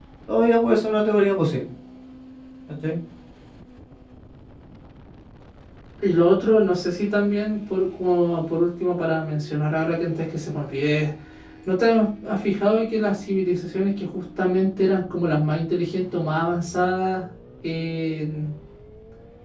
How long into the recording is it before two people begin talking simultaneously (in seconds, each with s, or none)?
none